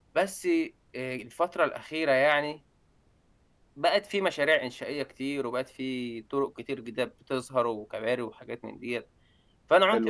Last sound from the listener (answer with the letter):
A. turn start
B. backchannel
B